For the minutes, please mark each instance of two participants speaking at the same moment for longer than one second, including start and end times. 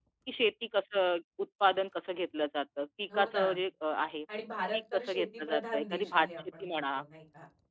4.7-7.0

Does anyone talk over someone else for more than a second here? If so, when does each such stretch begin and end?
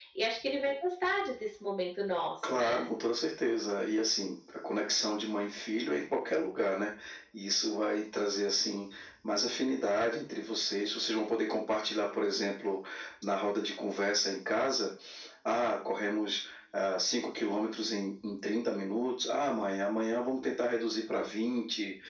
none

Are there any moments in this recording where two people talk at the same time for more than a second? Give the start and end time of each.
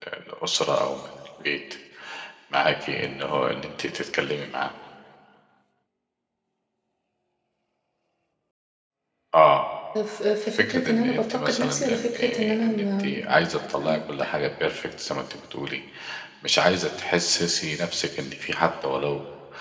10.5-13.2

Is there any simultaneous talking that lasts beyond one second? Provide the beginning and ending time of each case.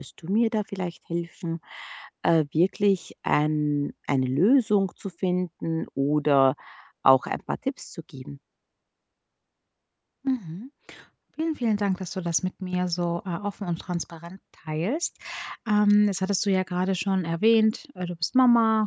none

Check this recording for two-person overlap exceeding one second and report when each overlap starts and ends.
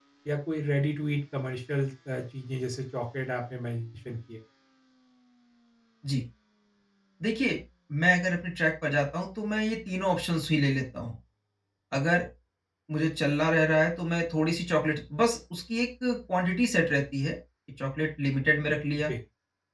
none

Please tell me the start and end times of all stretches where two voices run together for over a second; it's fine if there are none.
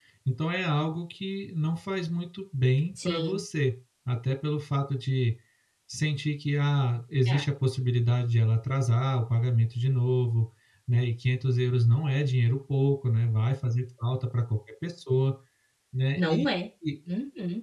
none

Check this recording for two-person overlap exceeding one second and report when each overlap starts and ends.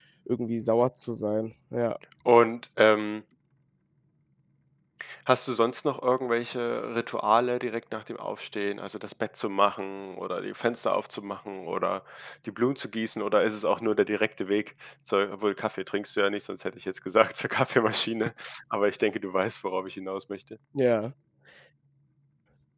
none

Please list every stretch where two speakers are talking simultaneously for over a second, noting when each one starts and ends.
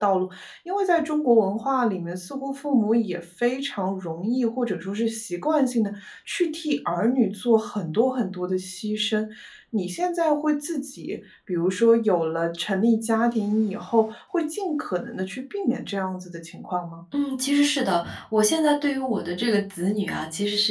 none

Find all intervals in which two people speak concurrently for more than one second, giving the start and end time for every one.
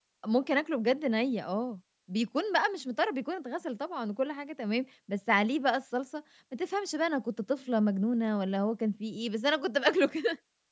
none

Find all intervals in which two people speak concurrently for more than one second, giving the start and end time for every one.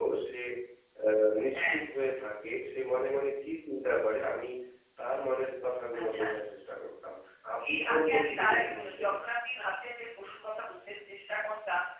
7.7-9.1

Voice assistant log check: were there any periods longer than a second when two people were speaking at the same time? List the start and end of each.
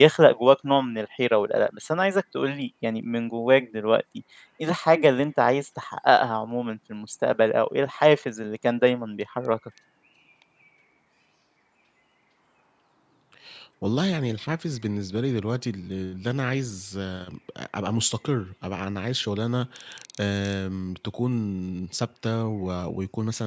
none

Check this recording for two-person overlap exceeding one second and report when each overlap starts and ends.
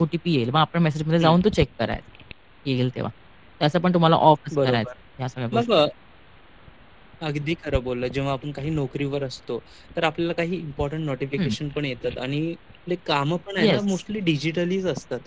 none

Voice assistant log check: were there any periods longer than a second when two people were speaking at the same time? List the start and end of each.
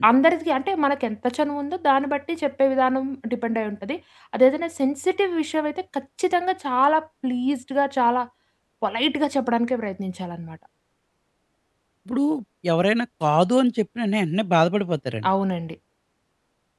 none

